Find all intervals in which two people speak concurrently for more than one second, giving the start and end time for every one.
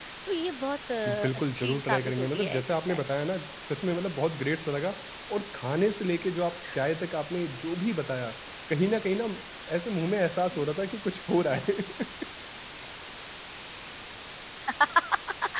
1.0-3.0

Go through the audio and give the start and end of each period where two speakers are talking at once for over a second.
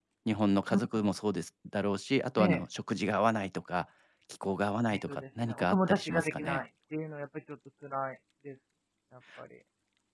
4.9-6.6

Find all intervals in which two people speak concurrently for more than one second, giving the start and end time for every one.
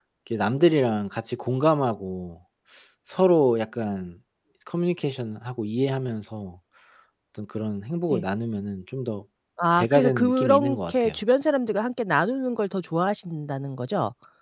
9.8-11.2

